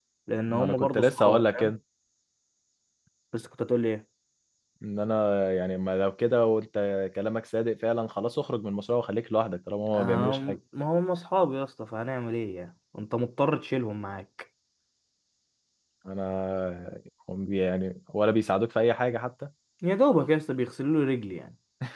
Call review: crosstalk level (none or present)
present